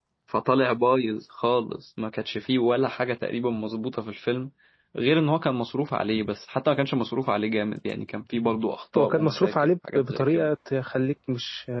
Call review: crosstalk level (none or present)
present